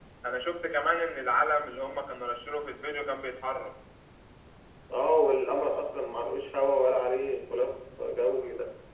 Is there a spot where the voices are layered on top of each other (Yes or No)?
No